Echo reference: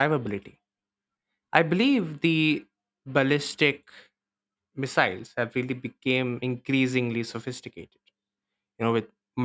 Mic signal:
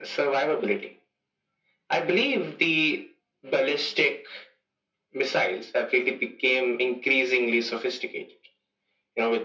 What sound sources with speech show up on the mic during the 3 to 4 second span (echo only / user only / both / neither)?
echo only